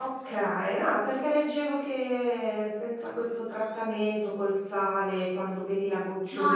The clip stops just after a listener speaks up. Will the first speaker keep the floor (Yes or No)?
No